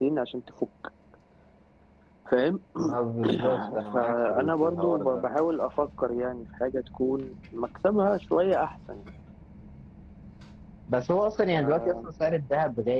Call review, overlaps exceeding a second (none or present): present